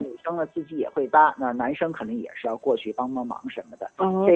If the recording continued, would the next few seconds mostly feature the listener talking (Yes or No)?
No